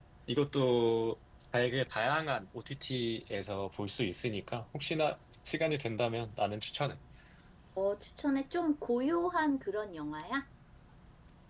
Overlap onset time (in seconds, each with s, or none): none